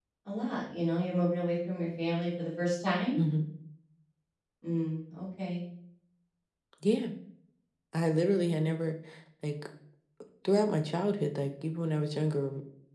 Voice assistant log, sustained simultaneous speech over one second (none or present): none